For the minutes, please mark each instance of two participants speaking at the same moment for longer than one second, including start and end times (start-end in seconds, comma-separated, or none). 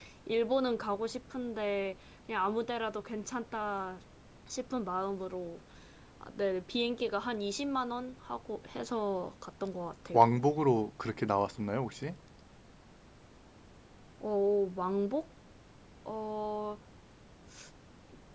none